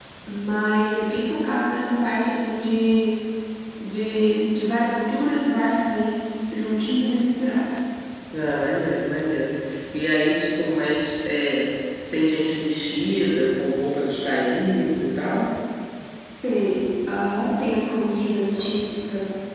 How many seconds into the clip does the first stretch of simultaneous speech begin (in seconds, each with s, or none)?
none